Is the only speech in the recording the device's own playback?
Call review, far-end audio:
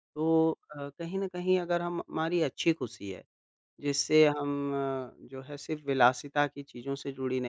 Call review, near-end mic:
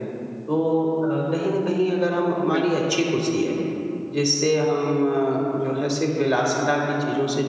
No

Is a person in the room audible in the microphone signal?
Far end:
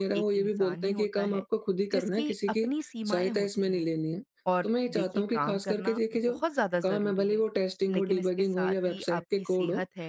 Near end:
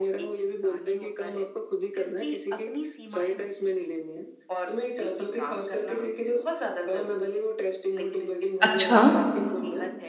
Yes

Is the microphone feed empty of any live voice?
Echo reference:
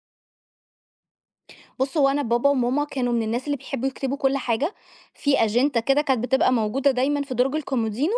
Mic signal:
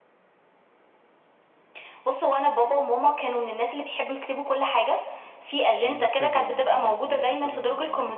No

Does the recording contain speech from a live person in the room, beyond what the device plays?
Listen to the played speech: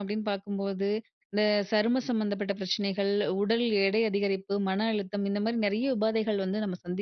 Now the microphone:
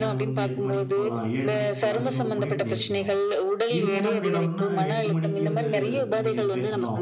Yes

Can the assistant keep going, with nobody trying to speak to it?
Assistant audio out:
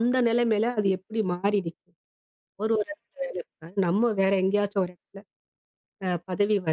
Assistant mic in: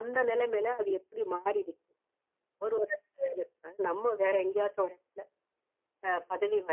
Yes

